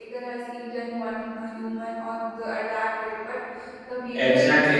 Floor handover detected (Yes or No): Yes